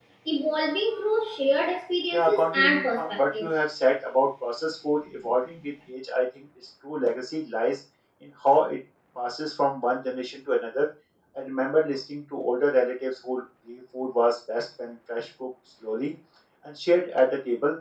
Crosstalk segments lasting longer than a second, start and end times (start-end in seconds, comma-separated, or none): 2.1-3.5